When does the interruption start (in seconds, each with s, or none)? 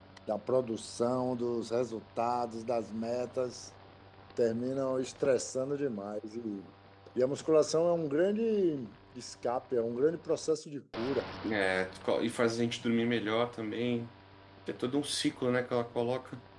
none